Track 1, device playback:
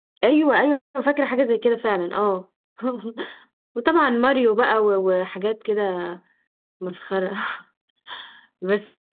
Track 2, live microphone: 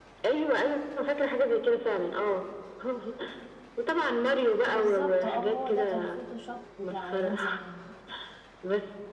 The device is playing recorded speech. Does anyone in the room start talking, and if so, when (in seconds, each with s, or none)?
4.7 s